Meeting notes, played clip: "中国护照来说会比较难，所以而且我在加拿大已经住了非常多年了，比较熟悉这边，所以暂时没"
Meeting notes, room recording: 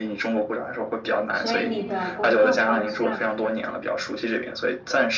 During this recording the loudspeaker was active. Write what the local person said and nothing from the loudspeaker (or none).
所以你的工作方向